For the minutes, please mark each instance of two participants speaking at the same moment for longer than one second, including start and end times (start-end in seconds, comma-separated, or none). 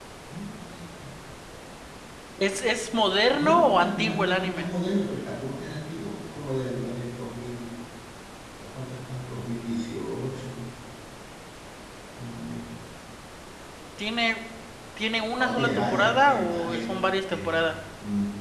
3.3-4.7, 15.4-16.8